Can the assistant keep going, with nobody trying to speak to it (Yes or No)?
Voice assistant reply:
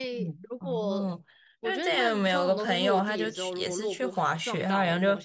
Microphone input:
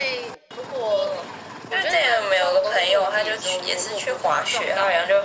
Yes